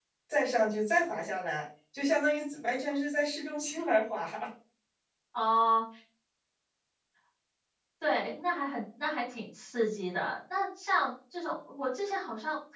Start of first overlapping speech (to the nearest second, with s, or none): none